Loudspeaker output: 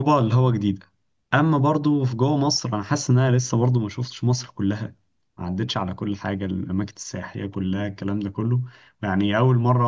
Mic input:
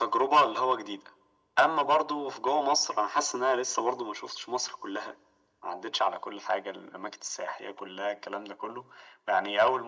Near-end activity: none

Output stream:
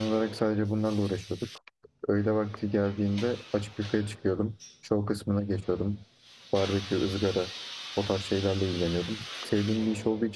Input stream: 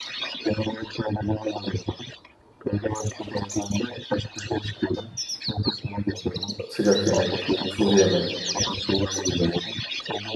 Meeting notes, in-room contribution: present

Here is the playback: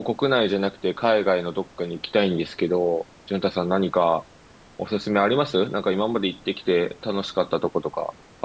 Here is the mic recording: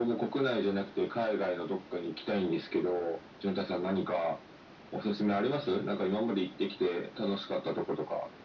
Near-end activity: none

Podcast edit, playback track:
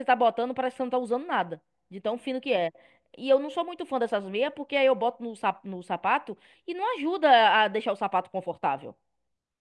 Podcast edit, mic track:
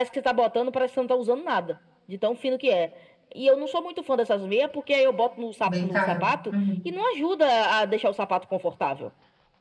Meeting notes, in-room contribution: present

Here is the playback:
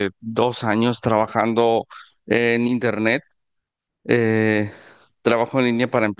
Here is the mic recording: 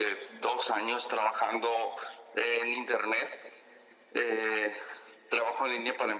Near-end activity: none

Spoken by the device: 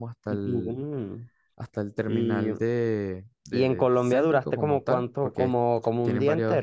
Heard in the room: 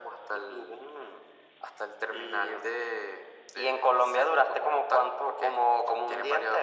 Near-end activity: none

